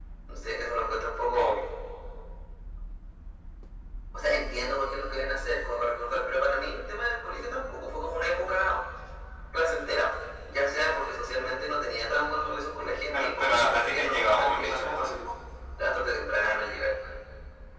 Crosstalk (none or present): present